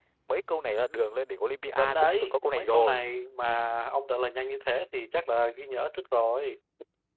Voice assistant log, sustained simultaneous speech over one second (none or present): present